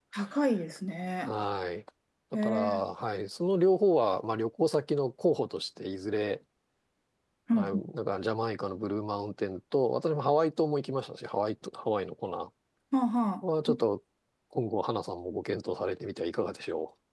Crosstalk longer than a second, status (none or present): none